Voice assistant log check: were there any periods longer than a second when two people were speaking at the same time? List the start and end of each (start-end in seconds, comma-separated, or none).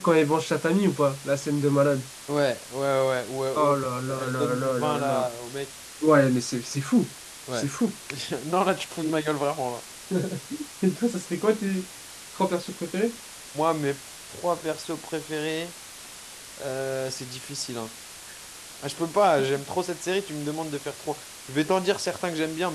3.6-5.3